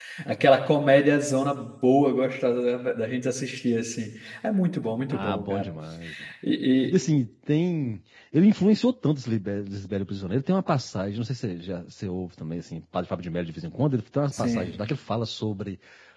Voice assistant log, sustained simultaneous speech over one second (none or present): none